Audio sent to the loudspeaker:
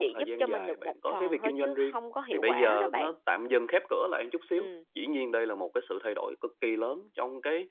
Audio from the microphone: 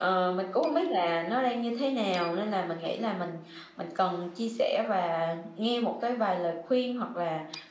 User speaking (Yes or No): Yes